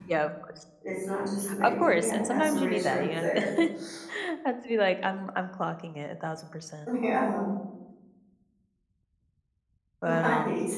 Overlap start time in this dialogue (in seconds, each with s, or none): 1.6 s